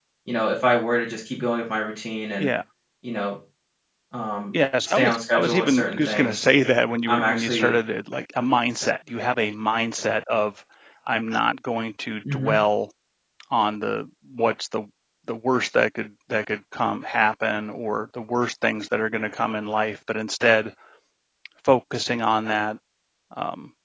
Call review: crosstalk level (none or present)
present